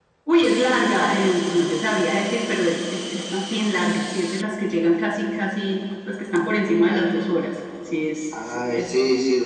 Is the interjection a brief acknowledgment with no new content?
No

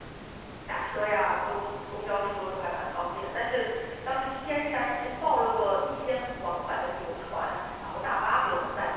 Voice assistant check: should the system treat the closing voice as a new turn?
Yes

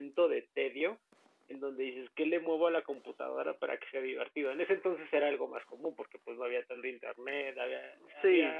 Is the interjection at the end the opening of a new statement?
Yes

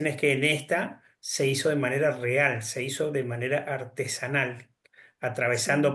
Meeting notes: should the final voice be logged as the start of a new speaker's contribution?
No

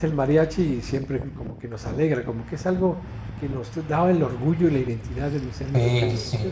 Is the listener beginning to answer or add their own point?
Yes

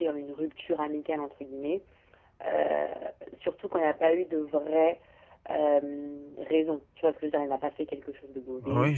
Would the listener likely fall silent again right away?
No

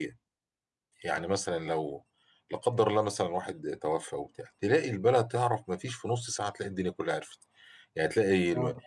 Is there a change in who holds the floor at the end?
No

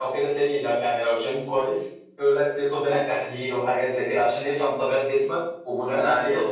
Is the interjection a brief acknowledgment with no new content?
Yes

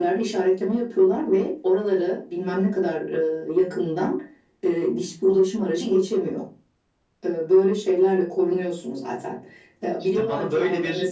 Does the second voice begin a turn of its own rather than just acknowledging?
Yes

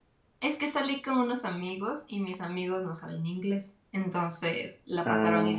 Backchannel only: Yes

